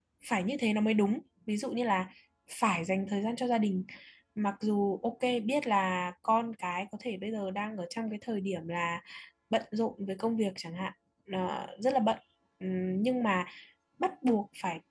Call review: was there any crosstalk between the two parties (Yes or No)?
No